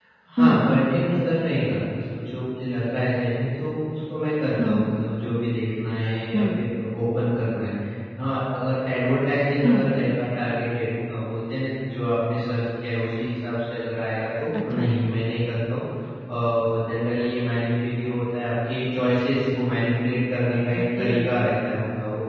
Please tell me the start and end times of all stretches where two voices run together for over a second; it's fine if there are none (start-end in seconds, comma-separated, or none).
none